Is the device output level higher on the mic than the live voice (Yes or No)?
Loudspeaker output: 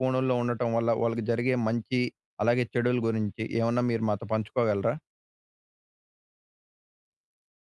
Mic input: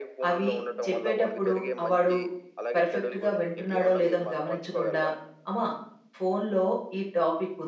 No